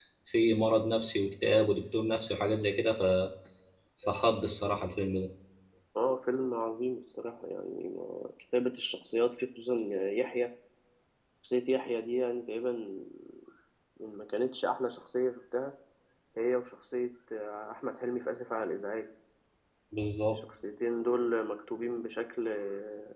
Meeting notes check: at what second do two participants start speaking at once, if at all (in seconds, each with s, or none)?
none